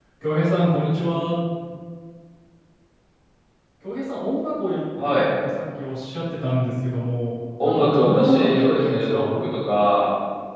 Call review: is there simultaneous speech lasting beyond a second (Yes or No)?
Yes